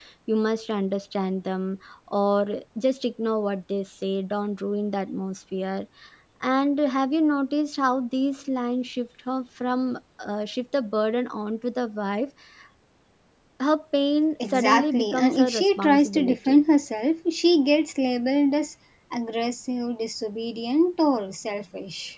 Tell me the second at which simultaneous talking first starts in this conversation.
14.4 s

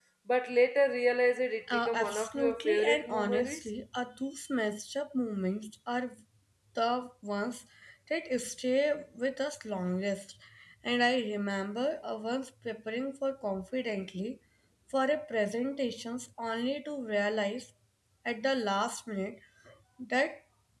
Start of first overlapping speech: 1.7 s

